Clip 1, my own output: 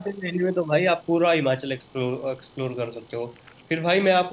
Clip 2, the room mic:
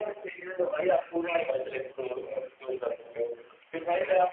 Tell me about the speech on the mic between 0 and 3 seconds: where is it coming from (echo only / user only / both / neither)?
echo only